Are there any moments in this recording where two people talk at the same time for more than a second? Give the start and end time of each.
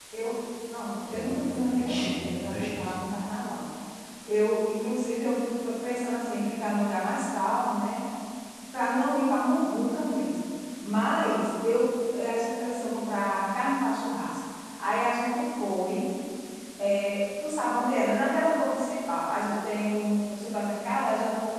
1.1-2.9

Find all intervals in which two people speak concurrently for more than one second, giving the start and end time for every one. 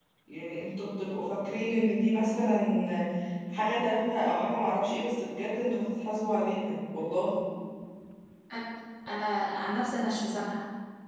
none

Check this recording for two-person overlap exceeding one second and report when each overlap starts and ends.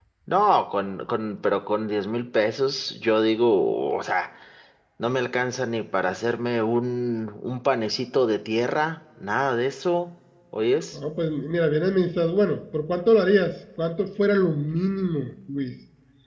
none

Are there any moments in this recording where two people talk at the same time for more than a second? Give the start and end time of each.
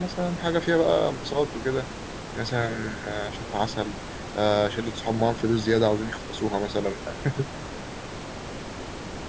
none

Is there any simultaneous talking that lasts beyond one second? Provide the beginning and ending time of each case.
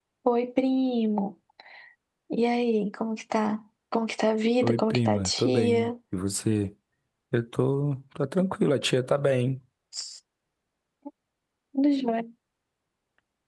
4.6-5.9

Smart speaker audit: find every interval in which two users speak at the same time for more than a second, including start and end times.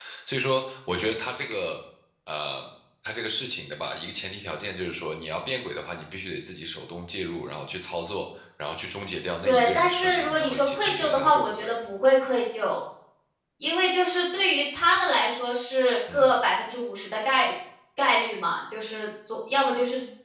9.4-11.7

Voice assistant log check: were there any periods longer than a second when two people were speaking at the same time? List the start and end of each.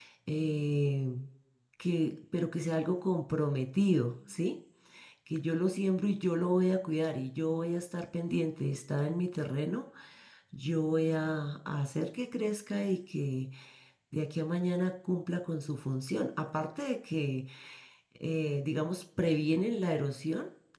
none

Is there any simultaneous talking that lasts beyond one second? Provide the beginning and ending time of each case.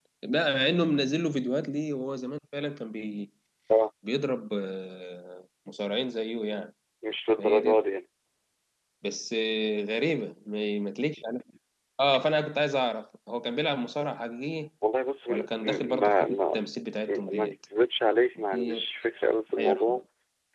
15.3-16.6

